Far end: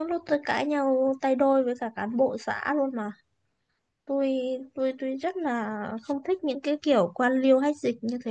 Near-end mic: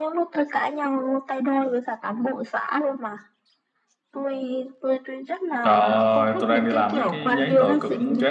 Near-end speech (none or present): present